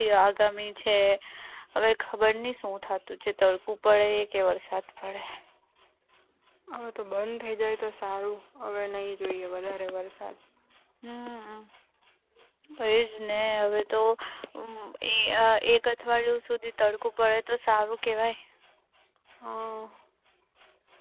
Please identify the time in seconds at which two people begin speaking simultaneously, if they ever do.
none

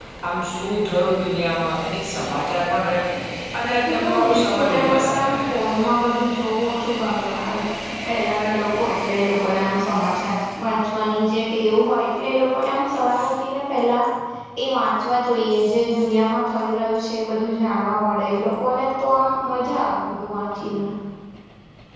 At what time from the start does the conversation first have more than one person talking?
3.8 s

